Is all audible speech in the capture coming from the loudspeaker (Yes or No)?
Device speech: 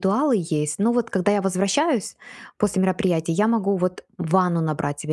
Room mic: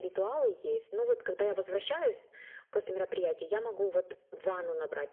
Yes